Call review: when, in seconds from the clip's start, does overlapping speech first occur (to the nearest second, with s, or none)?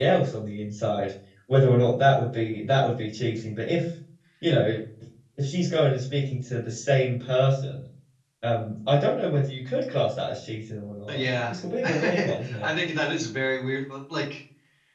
11 s